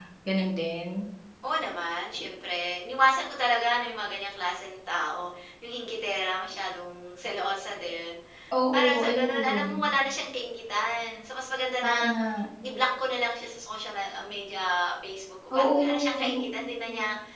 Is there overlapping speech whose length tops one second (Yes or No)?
Yes